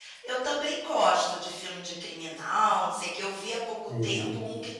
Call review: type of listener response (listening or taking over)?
listening